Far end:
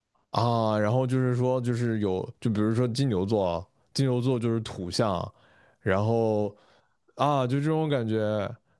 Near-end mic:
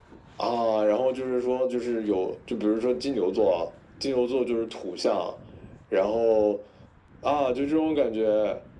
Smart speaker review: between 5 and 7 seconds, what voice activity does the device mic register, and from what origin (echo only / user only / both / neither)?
echo only